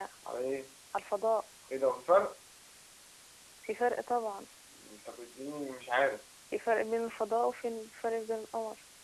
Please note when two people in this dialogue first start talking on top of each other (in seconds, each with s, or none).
none